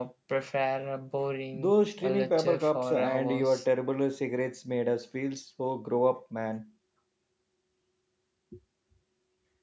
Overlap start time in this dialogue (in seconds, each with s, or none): 1.5 s